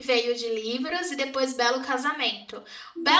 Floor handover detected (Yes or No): No